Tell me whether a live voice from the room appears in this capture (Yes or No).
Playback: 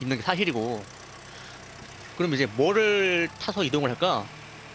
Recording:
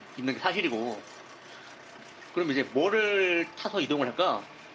No